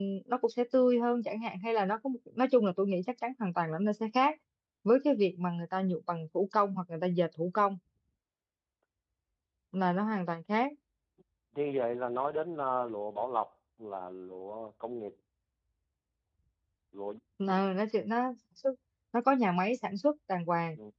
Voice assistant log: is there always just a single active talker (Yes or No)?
Yes